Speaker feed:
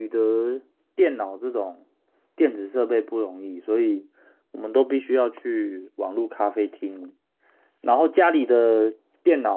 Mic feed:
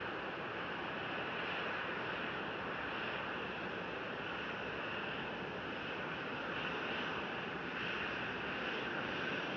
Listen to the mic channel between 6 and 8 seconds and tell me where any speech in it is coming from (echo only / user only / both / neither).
neither